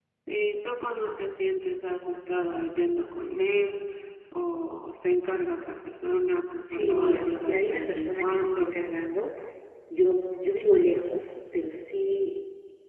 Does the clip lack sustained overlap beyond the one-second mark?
No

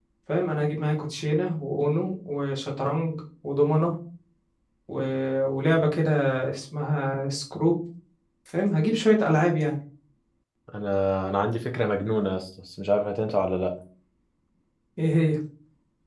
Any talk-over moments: No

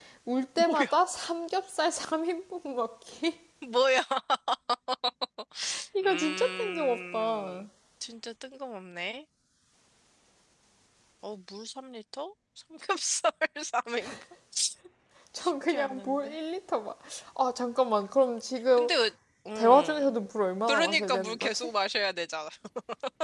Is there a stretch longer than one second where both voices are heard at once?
Yes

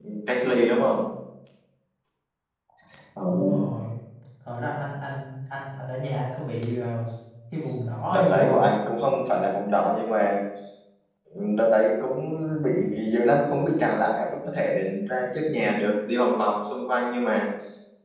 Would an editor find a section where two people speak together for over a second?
No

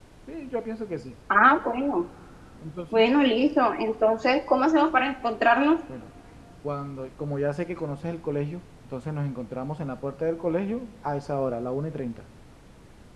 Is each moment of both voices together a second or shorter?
Yes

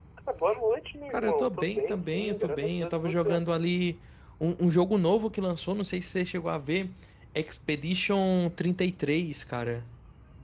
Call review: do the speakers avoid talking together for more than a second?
No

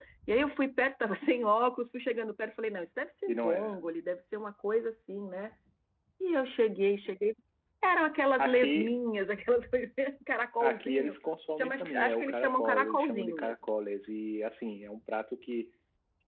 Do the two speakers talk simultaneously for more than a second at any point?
Yes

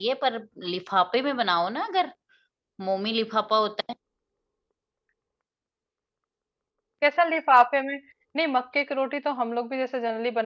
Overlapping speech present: No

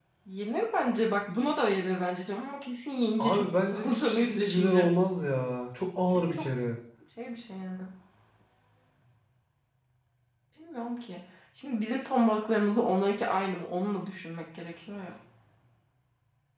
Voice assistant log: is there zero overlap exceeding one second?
No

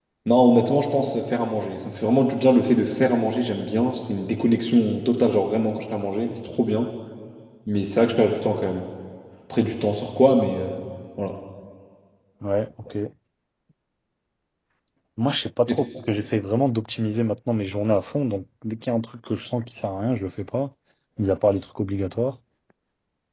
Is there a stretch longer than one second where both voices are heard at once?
No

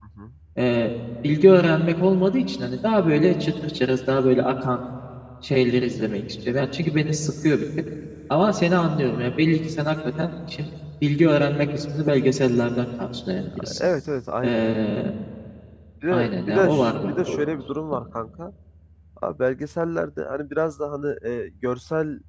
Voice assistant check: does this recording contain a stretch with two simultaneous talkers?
Yes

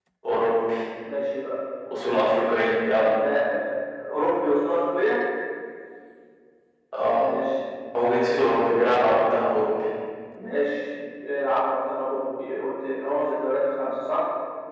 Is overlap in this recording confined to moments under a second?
Yes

